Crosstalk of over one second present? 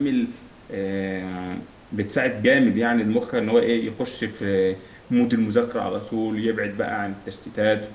No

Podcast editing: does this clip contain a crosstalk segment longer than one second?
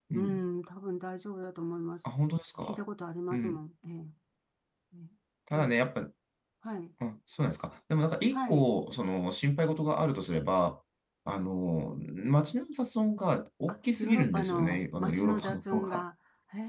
Yes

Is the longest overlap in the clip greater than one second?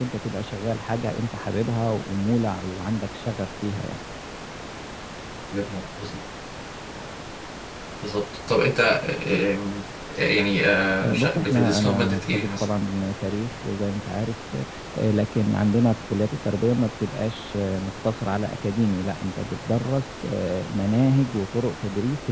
Yes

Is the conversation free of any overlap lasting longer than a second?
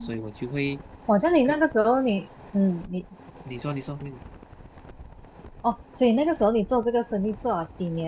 Yes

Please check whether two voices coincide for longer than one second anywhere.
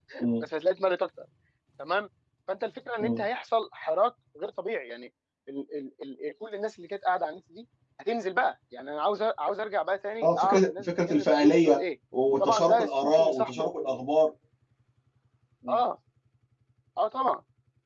Yes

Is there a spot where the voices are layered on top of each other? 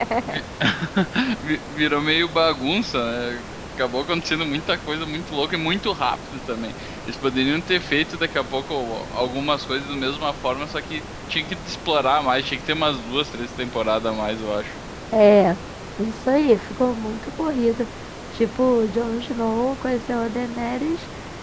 No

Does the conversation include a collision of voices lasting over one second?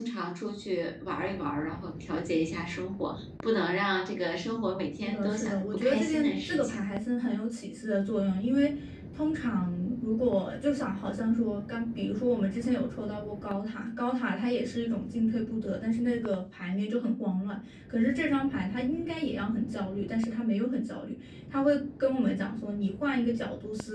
Yes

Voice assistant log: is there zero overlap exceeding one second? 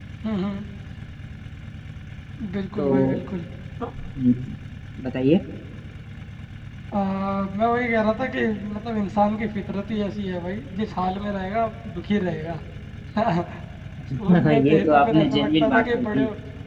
No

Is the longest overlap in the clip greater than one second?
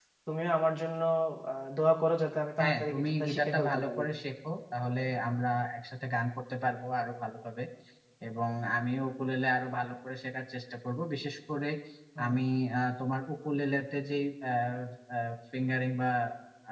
Yes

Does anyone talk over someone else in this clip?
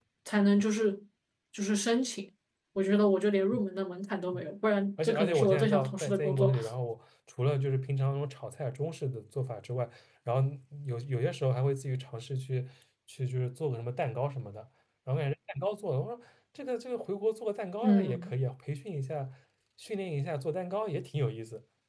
Yes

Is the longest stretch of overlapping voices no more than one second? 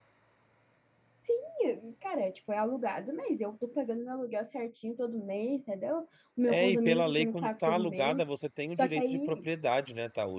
No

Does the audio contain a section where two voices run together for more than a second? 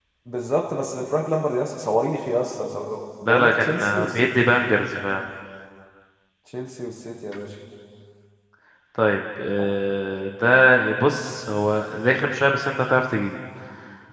Yes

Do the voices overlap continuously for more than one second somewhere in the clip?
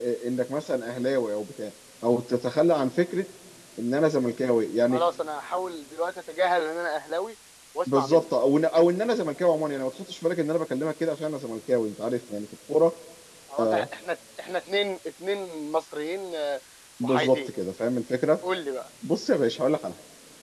No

